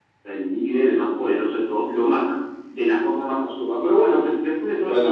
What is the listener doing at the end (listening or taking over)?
taking over